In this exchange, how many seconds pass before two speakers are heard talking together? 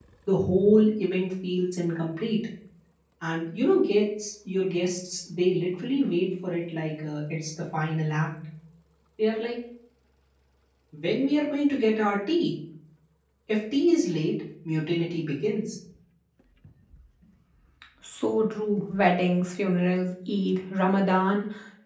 none

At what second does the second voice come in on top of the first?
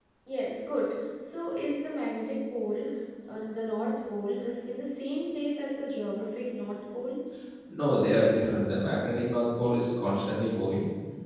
none

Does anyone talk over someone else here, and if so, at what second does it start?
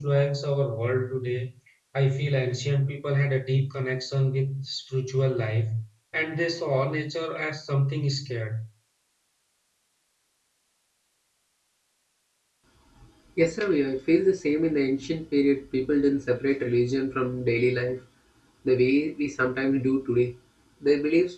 none

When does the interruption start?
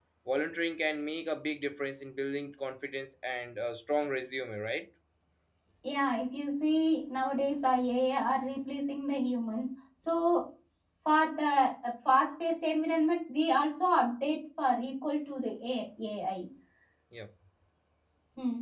none

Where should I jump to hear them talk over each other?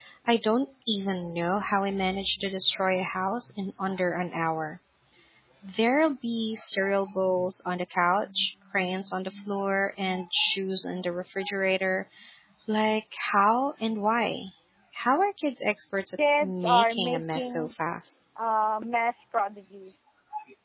16 s

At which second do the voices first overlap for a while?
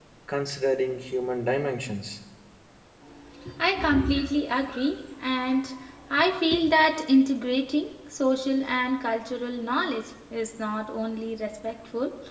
none

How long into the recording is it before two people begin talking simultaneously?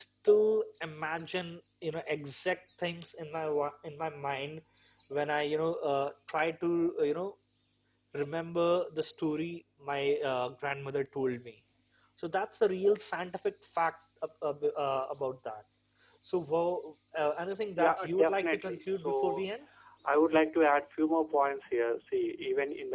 18 s

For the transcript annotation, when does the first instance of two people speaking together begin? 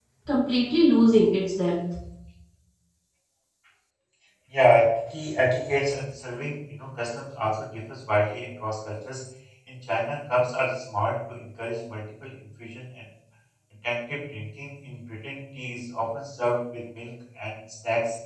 none

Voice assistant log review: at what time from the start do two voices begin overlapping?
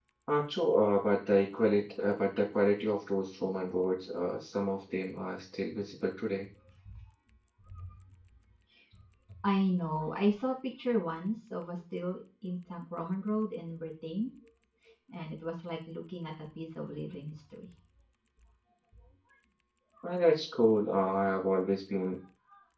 none

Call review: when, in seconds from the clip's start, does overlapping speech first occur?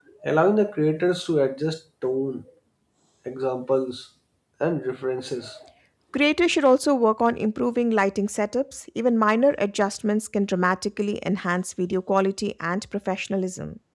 none

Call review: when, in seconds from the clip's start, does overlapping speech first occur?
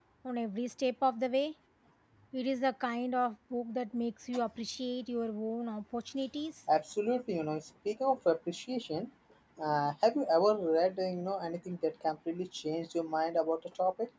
none

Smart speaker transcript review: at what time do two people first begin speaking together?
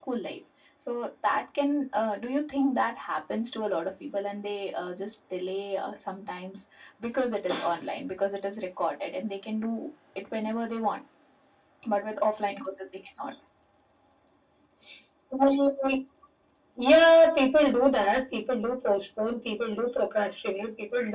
none

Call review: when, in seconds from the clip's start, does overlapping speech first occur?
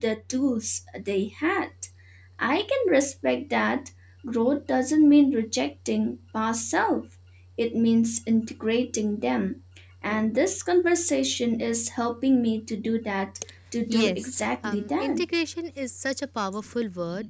14 s

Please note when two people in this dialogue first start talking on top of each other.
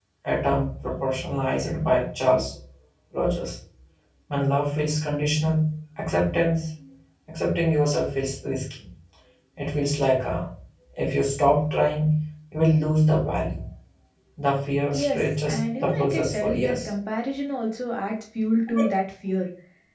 15 s

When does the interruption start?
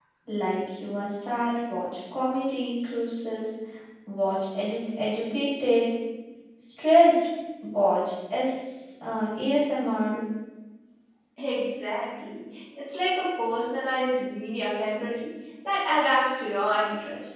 none

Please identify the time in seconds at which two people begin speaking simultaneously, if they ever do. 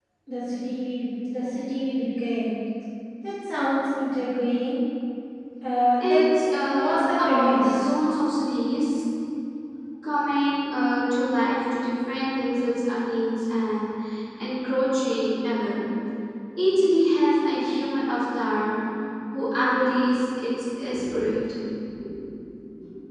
6 s

